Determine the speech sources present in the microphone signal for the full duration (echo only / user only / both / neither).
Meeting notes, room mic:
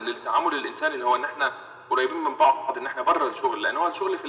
echo only